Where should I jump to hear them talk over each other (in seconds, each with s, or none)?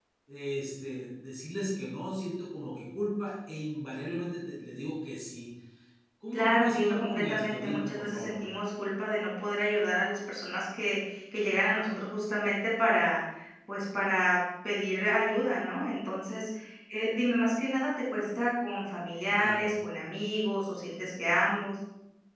6.3 s